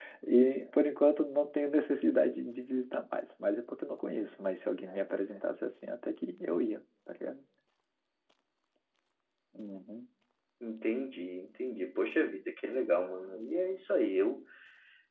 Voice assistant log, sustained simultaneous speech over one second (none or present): none